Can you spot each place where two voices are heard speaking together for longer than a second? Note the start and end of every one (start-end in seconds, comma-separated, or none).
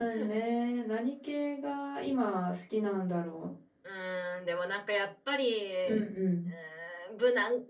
none